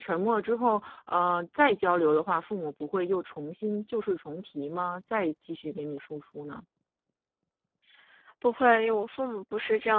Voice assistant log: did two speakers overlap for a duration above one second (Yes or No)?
No